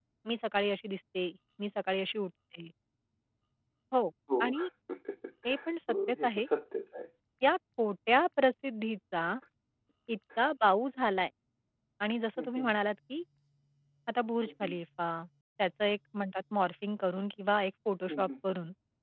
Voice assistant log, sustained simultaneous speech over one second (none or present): none